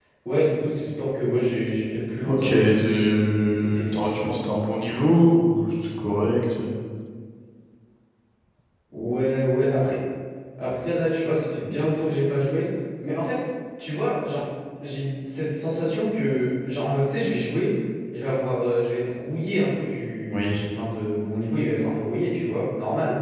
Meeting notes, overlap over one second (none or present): present